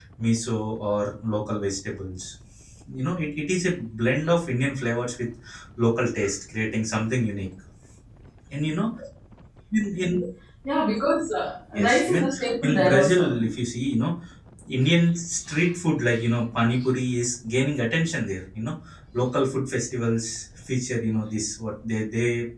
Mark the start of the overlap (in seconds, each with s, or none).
11.7 s